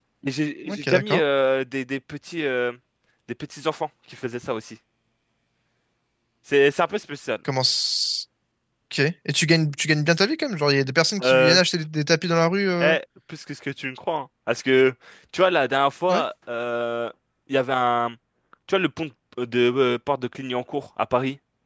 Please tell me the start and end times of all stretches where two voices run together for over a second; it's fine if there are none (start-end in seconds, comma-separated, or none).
none